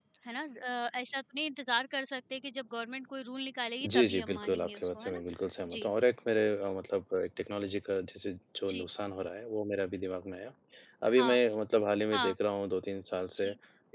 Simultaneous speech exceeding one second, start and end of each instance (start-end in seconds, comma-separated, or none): 3.9-5.2